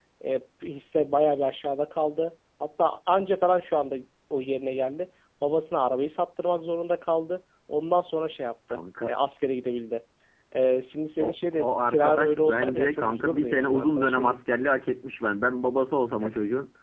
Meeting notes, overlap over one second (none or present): present